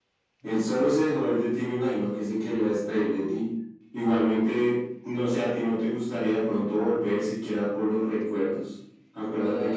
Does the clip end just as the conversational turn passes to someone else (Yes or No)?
Yes